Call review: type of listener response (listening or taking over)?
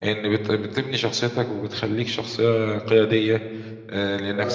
listening